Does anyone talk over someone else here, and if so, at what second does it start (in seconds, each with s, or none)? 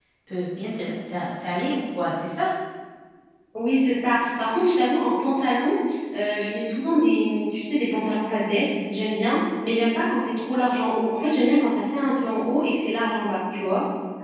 none